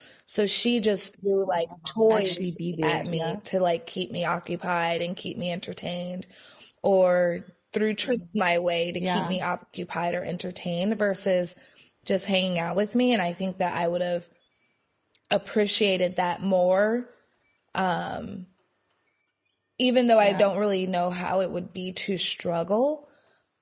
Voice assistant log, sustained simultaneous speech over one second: present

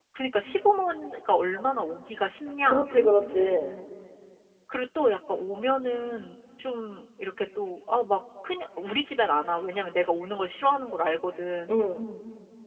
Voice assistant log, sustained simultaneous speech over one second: none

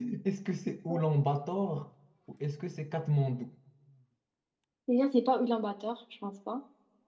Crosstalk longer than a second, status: none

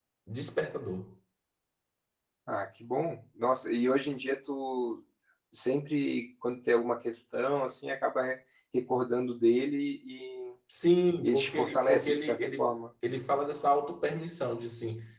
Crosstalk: present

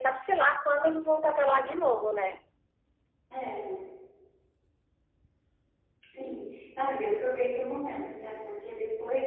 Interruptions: none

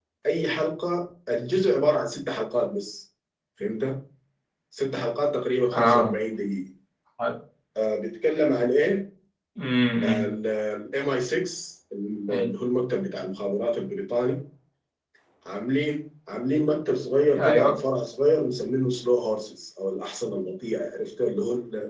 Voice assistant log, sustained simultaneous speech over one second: none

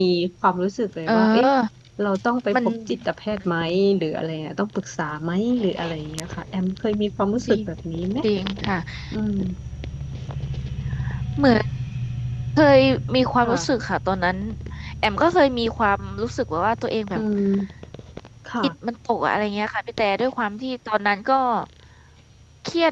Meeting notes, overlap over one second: none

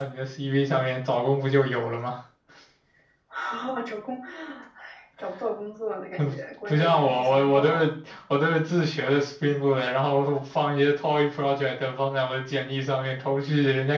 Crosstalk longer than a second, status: present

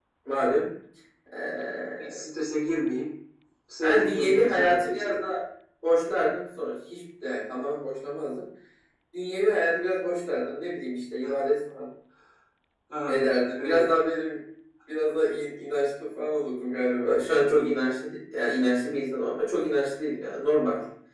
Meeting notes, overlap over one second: present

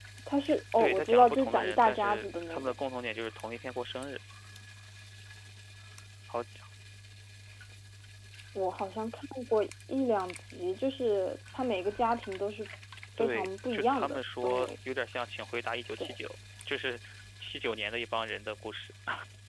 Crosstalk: present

